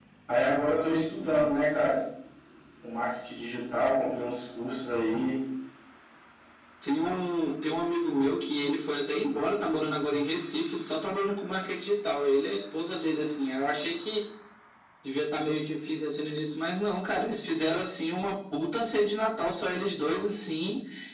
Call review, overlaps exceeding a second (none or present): none